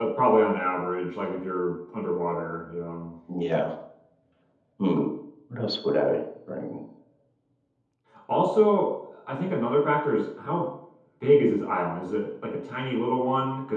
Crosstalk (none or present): none